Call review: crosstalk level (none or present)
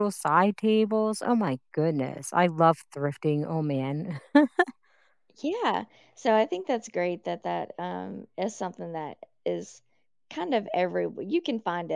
none